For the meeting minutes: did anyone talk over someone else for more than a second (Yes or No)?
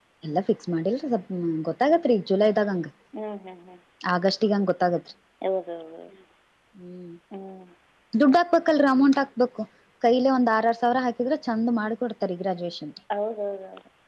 No